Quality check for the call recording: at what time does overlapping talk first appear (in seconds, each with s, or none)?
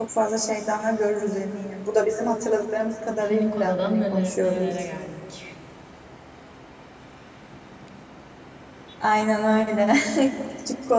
3.2 s